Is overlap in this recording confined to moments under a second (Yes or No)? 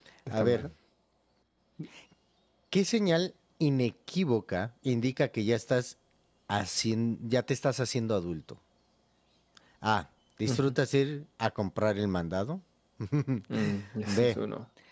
Yes